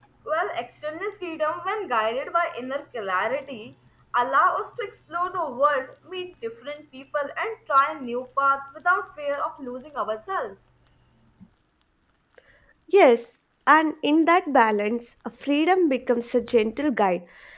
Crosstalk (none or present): none